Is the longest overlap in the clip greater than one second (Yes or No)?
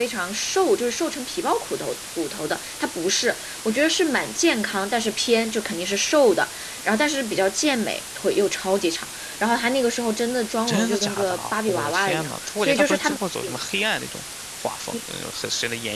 Yes